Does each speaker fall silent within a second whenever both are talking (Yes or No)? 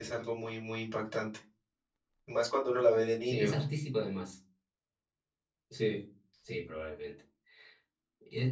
Yes